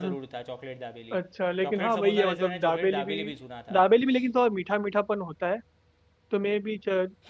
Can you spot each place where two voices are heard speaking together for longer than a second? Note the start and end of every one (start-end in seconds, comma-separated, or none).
1.6-3.1